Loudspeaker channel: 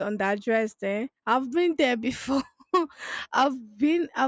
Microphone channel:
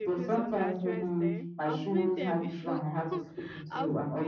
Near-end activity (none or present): present